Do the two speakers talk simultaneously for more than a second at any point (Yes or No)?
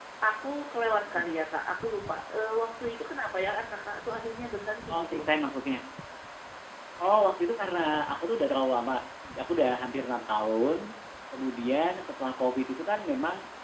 No